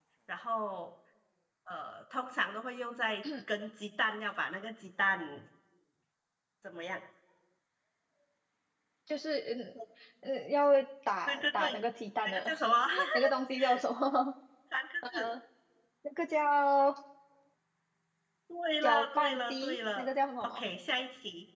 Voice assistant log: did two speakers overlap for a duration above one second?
Yes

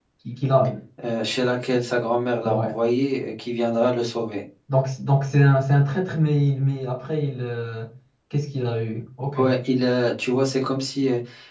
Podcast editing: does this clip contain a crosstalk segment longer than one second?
No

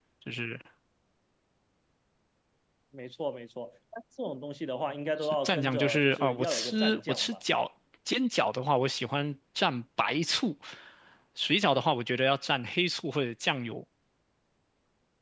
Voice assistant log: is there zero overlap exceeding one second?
No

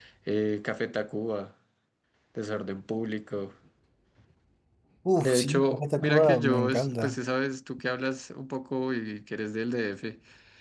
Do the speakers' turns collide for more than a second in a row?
Yes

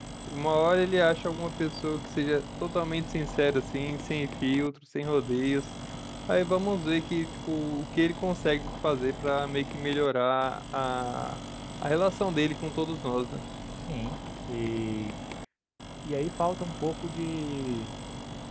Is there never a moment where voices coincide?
Yes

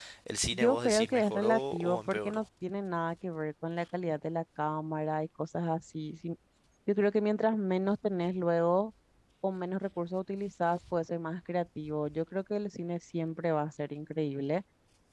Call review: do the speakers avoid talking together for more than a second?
No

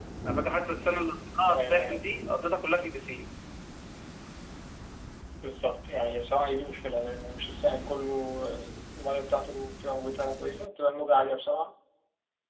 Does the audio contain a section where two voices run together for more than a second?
No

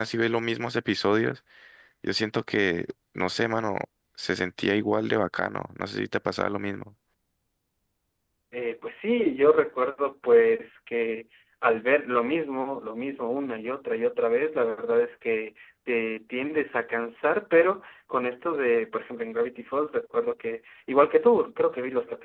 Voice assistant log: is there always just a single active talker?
Yes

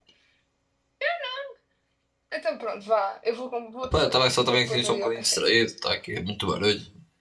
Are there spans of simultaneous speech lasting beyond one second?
Yes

